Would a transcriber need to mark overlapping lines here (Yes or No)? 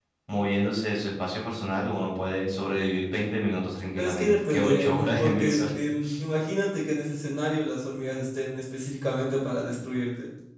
Yes